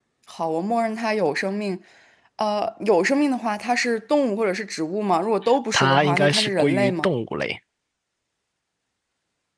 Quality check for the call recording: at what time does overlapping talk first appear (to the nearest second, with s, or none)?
6 s